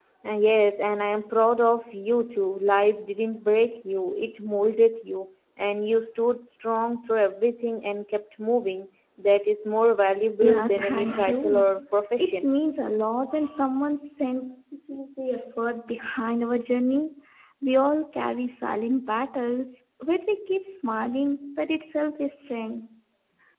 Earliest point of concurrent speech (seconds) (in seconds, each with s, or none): 10.4 s